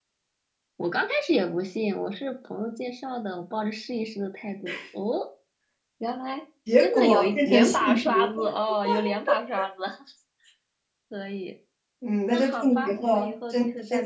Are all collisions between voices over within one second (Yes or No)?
No